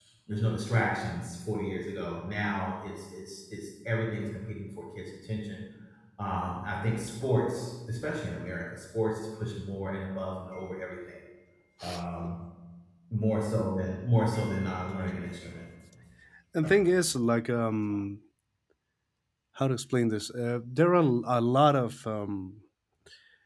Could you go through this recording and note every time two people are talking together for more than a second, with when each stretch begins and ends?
none

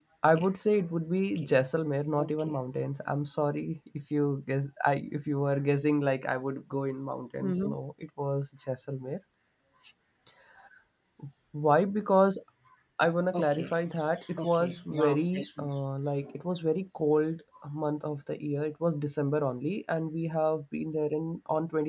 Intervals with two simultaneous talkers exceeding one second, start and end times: 14.4-15.7

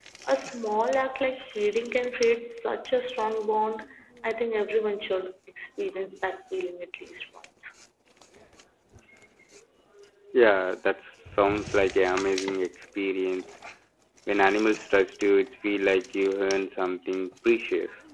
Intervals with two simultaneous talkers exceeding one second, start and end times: none

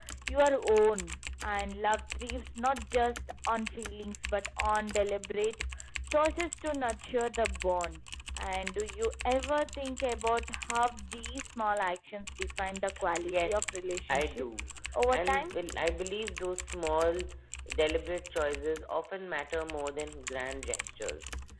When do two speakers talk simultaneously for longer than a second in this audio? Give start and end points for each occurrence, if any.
13.2-14.4

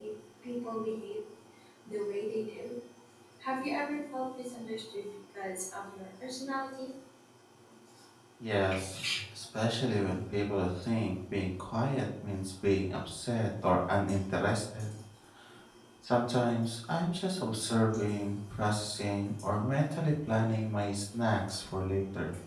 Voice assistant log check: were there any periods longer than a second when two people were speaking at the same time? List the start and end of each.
none

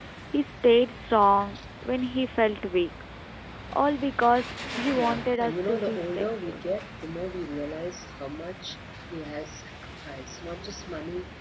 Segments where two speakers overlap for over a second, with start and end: 4.9-6.6

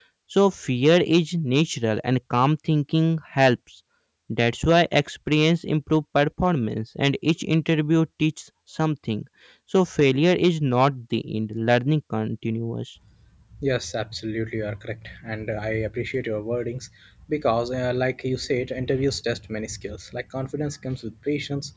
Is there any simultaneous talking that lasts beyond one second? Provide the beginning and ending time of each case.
none

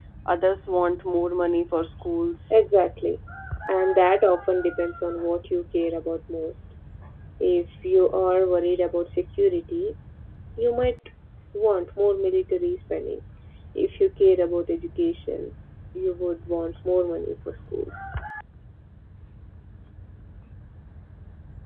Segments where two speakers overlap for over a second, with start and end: none

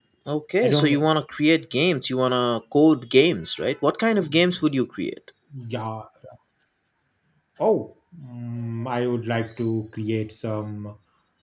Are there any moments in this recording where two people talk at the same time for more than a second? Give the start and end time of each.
none

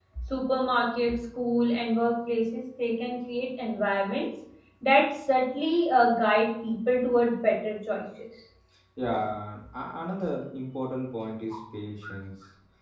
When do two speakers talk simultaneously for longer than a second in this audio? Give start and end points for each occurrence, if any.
none

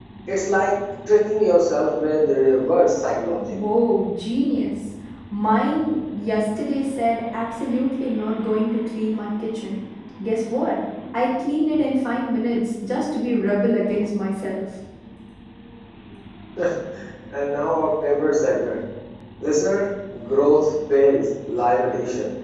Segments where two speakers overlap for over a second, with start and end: none

